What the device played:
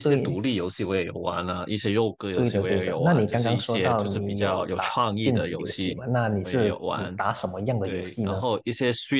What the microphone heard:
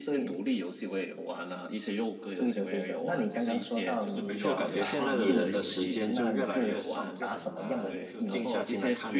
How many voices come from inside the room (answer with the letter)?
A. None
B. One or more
B